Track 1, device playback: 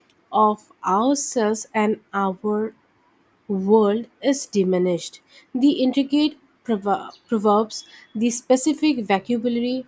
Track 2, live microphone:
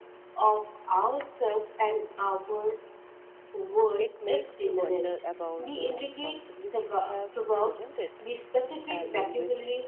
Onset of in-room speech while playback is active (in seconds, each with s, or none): 4.0 s